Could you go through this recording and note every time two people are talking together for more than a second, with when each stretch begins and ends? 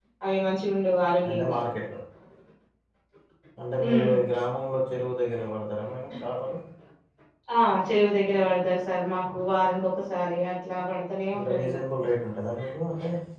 none

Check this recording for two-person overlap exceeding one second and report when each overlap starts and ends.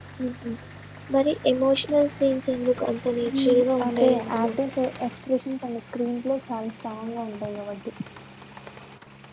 3.3-4.5

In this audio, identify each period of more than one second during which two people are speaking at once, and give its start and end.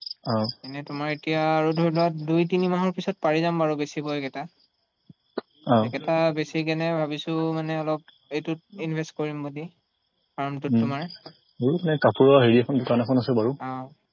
none

